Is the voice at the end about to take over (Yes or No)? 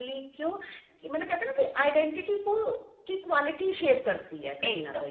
Yes